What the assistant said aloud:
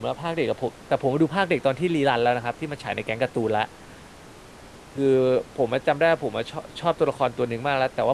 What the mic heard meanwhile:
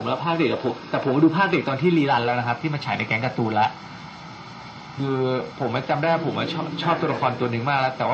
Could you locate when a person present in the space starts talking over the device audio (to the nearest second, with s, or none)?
6 s